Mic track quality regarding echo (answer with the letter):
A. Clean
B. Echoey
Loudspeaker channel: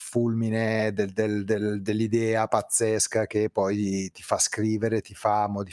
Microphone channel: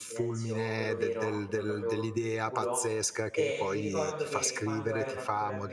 B